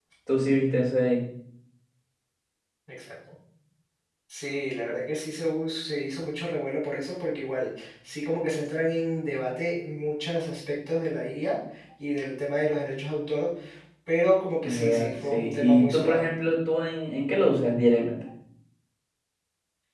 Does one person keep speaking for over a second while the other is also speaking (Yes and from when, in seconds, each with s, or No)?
Yes, from 14.7 s